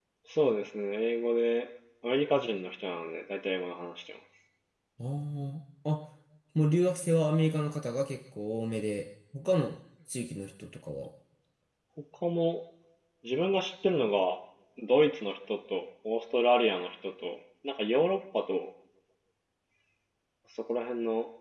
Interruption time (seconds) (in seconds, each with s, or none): none